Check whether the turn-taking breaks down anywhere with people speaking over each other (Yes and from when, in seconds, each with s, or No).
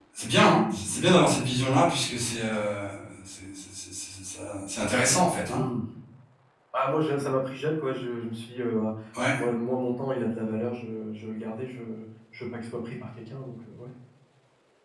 No